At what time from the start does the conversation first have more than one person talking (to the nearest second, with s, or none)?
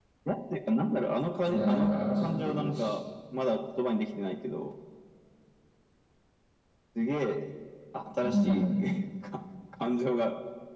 1 s